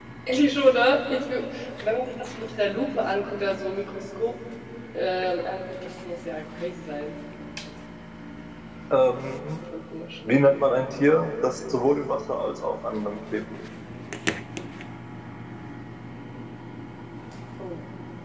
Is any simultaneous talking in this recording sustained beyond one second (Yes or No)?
No